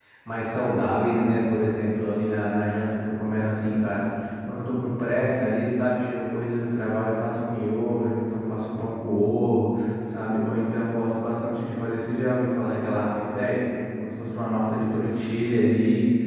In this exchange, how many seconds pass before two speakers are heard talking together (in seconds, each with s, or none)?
none